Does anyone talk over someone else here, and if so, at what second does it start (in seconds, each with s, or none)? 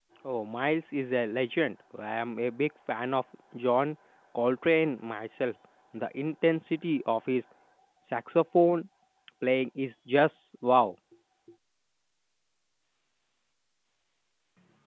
none